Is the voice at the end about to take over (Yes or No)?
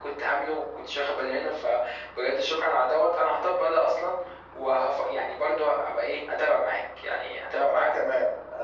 Yes